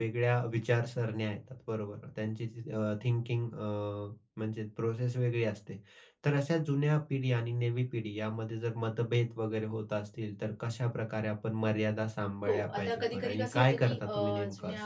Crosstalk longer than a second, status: present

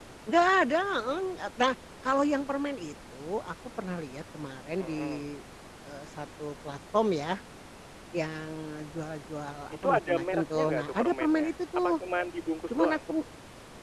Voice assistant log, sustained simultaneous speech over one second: present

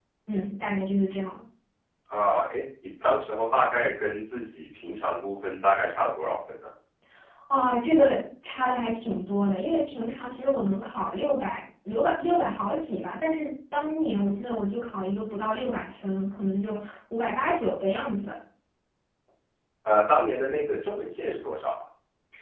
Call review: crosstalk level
none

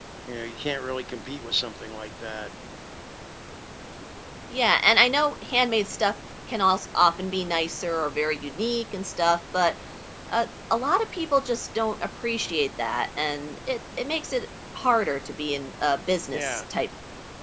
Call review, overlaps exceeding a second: none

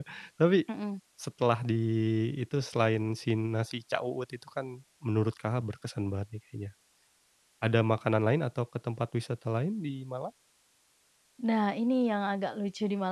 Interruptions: none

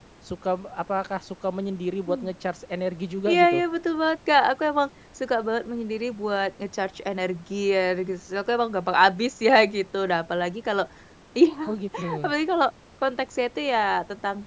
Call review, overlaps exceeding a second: none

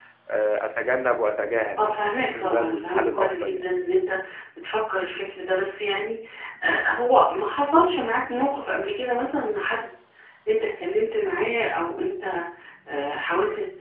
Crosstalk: present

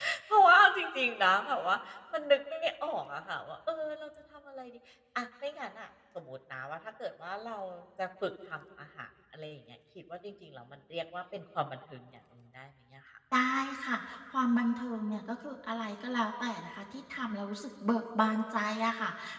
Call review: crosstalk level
none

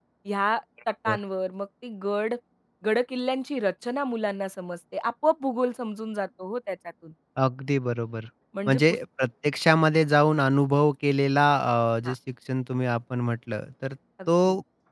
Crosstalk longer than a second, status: none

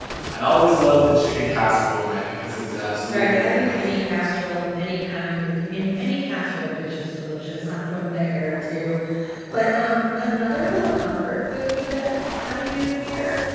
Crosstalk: present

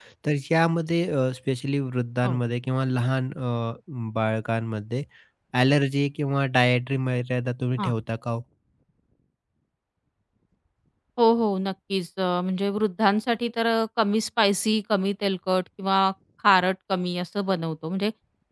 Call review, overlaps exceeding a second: none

